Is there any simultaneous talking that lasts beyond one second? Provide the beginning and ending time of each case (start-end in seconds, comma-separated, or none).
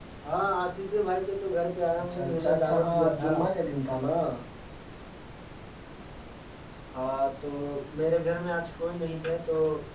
2.0-3.3